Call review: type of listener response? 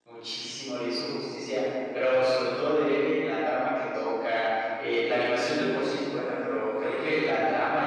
listening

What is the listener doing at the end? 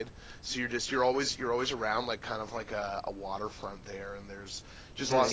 taking over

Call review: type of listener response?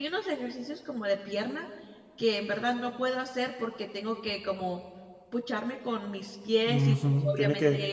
taking over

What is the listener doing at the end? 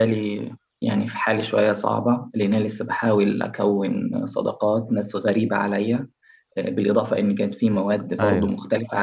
listening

